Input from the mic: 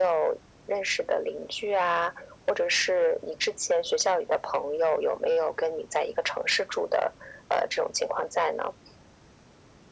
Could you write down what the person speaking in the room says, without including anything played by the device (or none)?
none